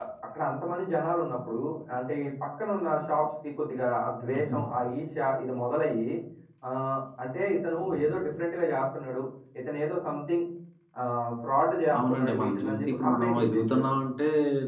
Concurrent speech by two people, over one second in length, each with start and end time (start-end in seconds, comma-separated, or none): 12.0-13.9